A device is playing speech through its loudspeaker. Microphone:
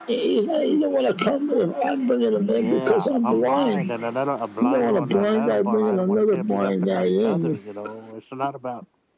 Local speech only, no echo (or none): Yeah, I'm blind, and another a blind one, and another blind one can't be helping out each other. You know, it's not about